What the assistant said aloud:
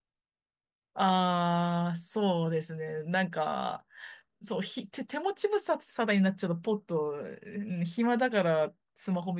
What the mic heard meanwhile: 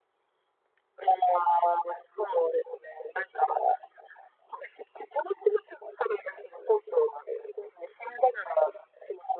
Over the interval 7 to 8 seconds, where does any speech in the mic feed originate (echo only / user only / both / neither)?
echo only